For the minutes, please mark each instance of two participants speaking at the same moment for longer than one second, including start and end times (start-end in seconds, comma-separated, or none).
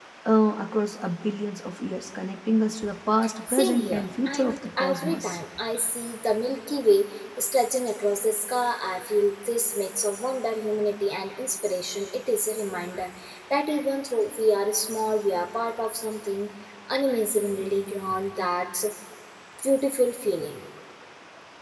3.5-5.4